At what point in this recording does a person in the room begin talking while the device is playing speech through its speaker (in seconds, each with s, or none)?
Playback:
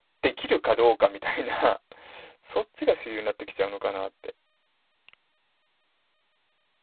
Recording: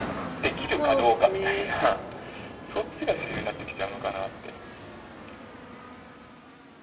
0.7 s